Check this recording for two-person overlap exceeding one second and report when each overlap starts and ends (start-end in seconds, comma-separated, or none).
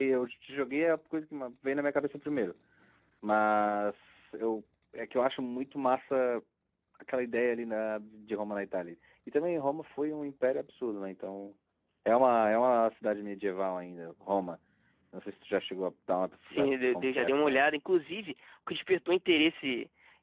16.4-17.6